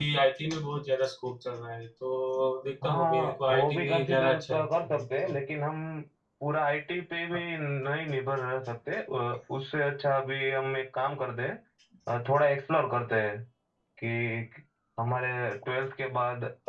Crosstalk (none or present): present